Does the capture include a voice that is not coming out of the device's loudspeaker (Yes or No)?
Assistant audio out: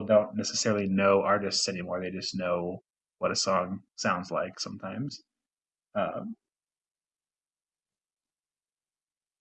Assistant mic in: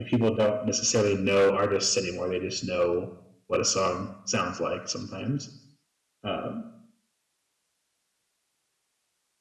No